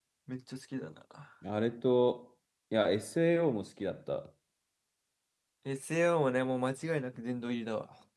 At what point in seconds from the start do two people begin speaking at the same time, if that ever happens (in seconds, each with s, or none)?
none